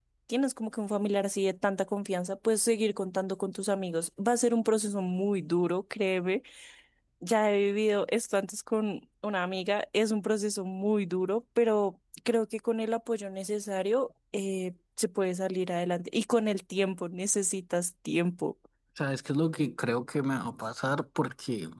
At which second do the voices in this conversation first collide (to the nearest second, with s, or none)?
none